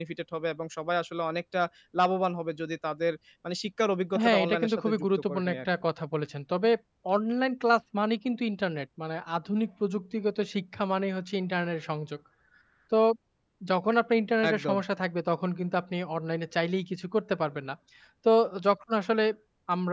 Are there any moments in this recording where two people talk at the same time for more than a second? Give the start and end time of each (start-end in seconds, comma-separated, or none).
4.2-5.6